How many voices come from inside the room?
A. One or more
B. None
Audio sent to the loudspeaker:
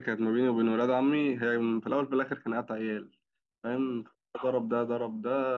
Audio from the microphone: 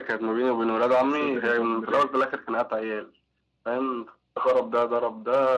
A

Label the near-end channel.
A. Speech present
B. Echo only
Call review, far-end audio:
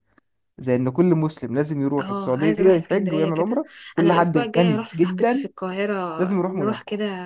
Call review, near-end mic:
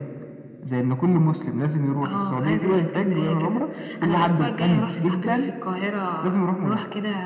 B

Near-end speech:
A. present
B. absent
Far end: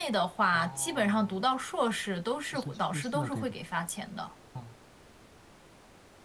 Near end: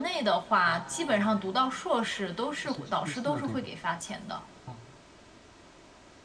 B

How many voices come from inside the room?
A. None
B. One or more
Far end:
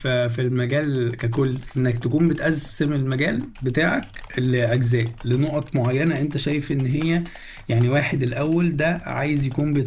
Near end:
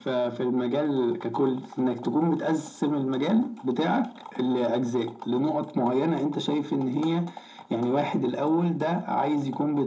A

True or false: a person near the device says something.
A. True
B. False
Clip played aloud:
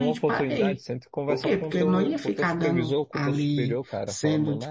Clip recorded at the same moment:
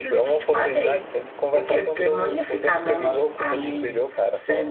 A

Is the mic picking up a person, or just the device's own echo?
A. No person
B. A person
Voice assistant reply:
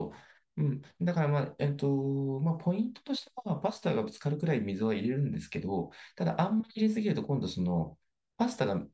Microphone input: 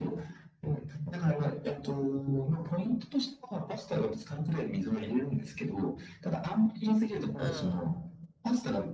B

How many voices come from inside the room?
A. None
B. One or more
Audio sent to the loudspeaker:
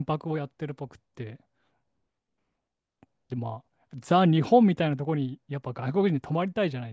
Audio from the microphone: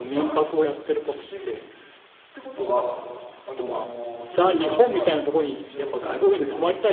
B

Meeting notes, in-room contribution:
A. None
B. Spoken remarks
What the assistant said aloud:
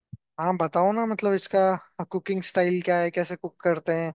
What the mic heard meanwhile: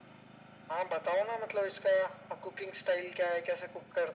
A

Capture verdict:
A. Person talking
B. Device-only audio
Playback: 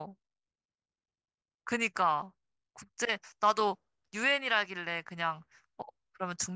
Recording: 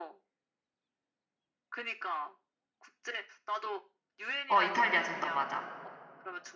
A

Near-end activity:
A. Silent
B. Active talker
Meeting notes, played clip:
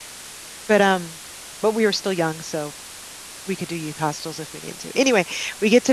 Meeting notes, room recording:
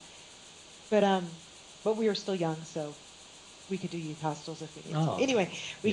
B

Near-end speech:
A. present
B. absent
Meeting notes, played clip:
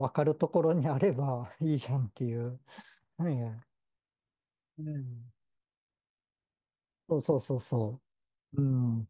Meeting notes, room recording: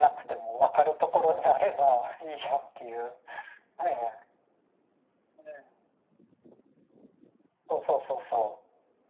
B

